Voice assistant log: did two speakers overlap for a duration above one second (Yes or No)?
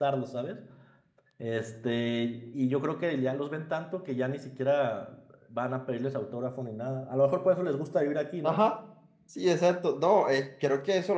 No